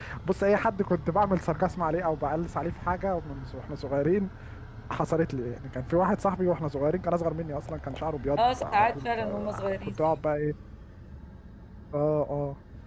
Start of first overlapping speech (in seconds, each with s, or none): 8.4 s